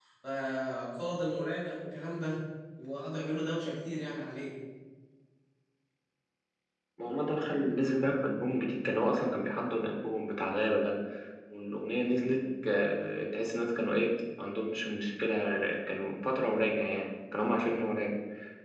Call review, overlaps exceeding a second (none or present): none